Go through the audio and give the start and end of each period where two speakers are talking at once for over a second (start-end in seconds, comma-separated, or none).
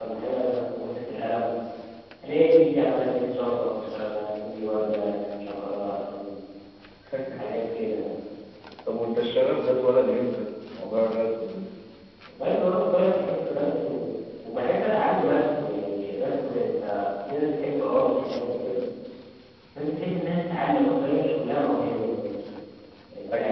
none